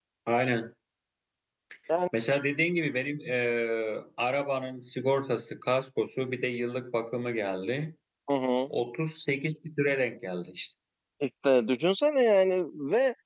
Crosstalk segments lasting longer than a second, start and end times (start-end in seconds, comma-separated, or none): none